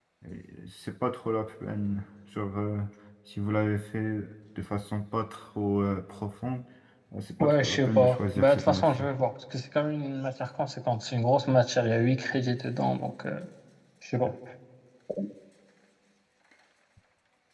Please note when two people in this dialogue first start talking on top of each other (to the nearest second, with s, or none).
7 s